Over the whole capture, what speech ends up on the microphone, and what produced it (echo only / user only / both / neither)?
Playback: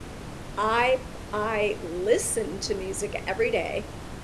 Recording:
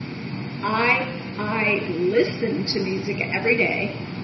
echo only